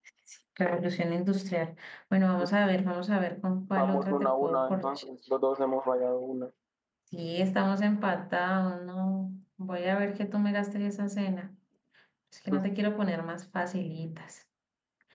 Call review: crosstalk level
present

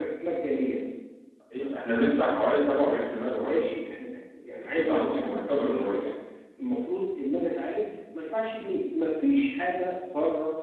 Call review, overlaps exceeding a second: present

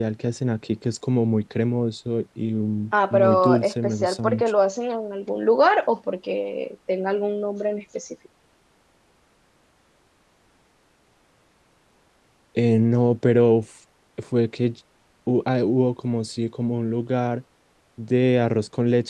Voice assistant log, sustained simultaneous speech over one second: present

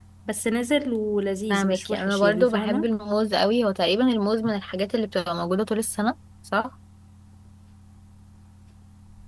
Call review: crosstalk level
present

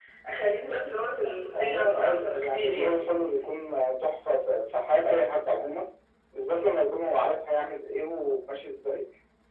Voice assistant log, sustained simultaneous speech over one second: present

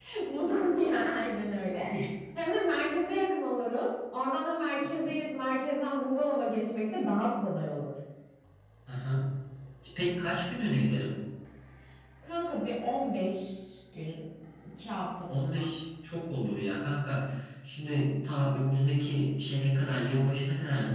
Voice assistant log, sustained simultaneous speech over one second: none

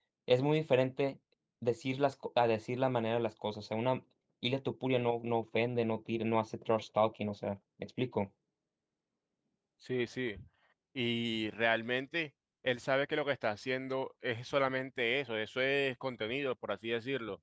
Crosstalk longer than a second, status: none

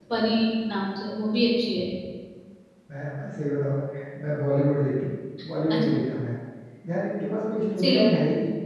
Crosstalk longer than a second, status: none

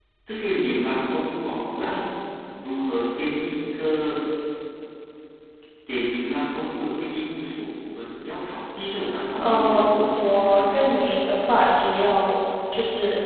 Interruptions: present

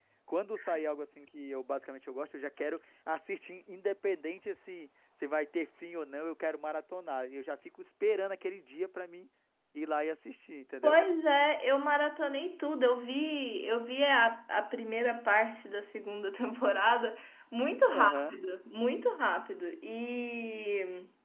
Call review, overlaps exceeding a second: none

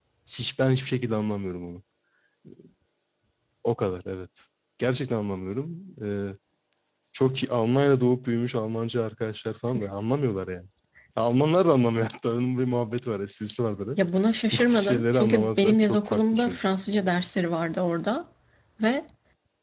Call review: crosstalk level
present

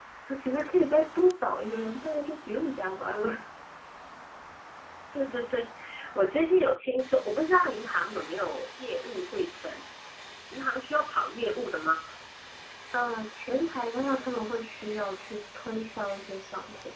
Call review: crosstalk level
none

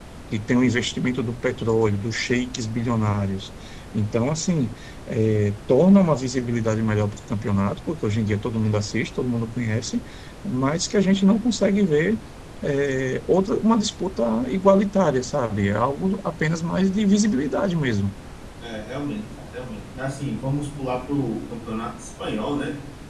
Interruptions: none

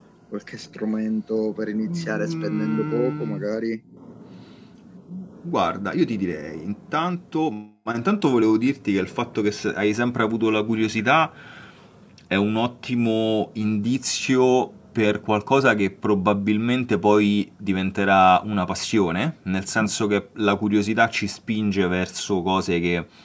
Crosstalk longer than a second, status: present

